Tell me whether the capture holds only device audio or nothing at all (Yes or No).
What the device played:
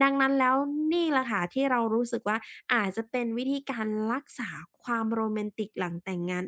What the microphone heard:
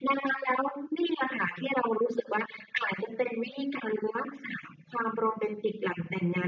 Yes